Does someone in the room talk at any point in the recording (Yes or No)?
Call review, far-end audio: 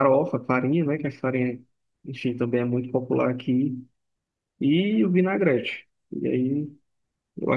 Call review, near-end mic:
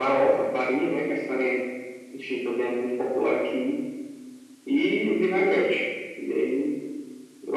No